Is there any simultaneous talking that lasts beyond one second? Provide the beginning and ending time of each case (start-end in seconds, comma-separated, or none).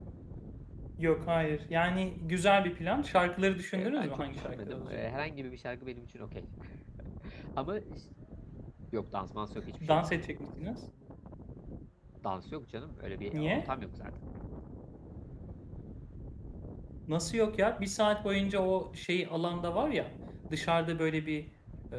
3.8-5.2